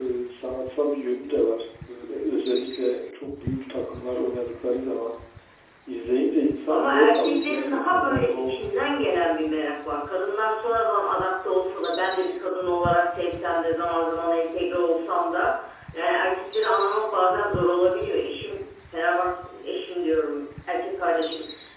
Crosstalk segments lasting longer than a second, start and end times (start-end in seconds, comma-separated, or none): 6.7-8.6